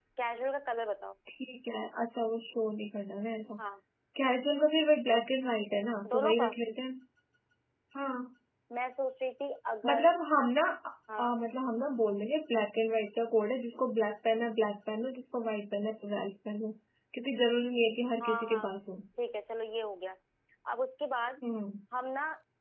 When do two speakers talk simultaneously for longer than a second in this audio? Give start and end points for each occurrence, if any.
none

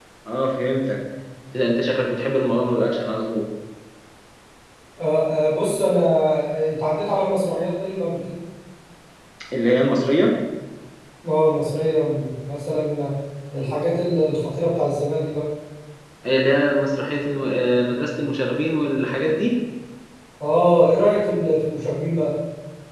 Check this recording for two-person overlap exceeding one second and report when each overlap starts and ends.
none

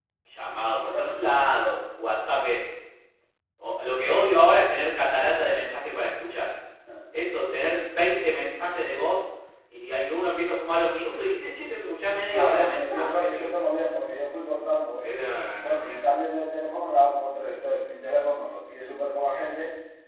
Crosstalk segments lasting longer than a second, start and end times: 12.3-13.5

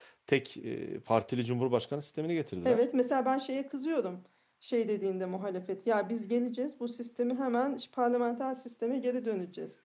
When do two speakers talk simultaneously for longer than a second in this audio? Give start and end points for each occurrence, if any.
none

